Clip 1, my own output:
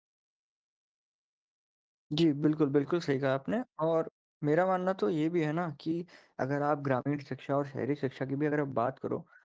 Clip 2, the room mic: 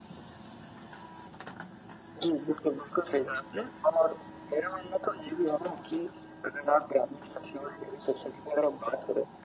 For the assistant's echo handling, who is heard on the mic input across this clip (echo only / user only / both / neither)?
echo only